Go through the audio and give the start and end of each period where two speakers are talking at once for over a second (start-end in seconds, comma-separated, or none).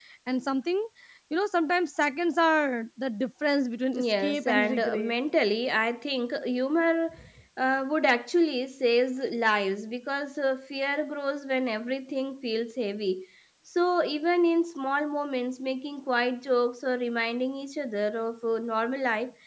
3.9-5.1